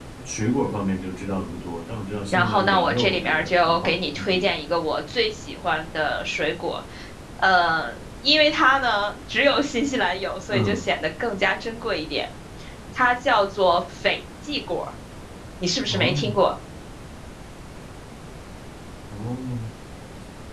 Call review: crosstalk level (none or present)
present